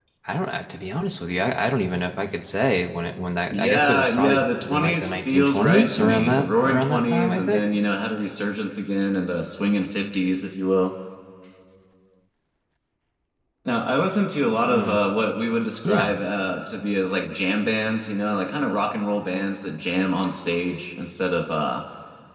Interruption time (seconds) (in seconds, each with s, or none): 3.5 s